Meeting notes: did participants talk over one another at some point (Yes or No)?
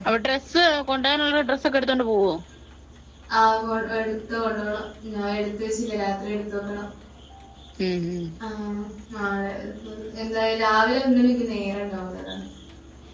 No